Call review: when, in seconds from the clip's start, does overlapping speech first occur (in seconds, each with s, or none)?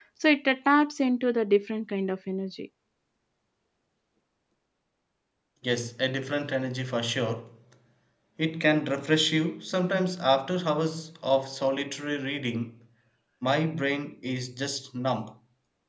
none